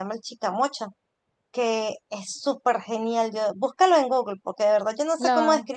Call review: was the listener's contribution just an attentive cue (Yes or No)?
Yes